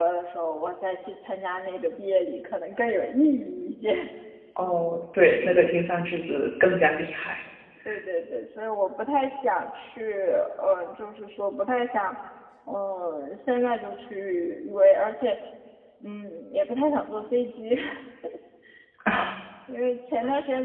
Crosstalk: none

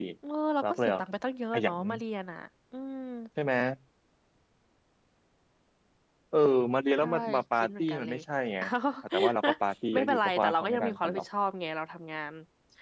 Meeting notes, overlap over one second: present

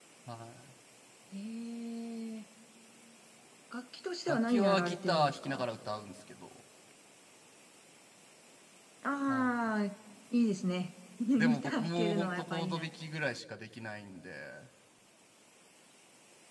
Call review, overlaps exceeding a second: present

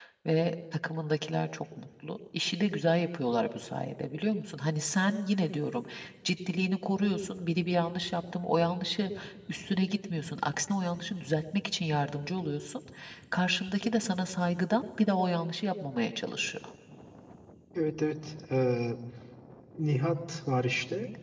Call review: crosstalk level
none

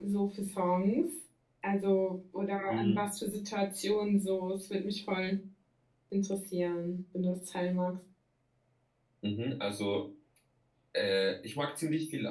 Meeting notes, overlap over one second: none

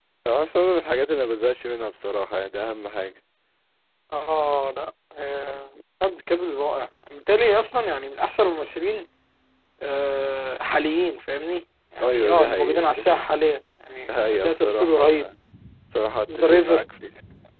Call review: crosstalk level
present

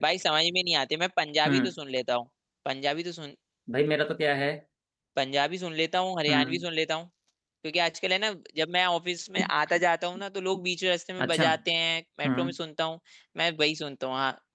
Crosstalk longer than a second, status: none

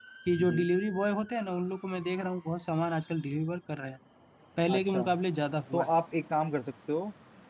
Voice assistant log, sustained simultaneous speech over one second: none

